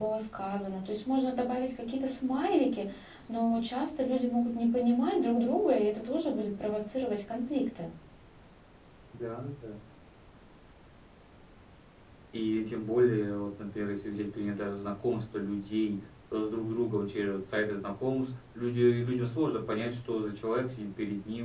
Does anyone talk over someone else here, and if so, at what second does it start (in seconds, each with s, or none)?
none